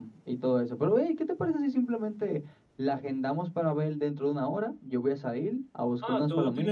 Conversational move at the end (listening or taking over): taking over